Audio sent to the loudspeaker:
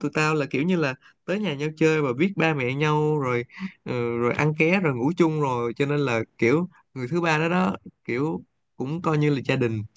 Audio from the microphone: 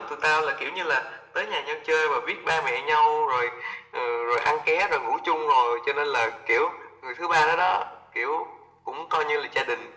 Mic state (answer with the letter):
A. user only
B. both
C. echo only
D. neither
C